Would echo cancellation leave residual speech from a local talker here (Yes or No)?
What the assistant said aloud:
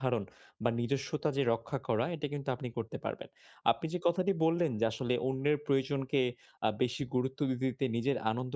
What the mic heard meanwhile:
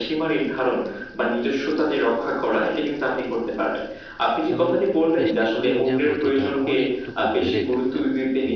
Yes